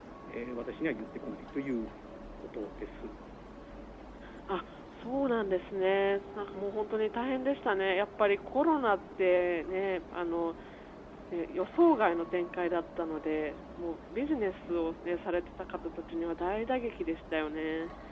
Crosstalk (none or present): none